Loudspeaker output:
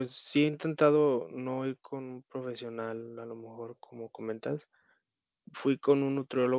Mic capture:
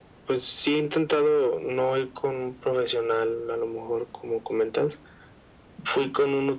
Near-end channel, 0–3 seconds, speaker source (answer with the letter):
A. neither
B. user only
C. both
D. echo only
D